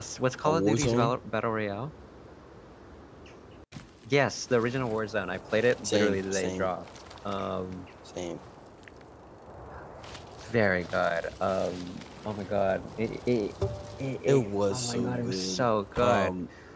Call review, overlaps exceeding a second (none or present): present